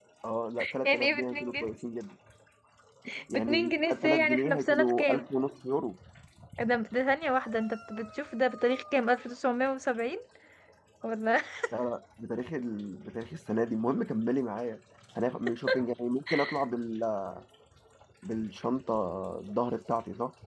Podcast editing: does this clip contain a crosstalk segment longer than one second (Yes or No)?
Yes